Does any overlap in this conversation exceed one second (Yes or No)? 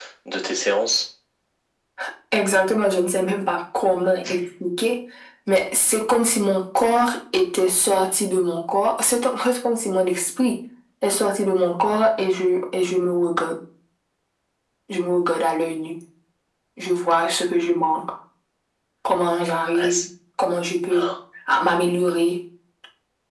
No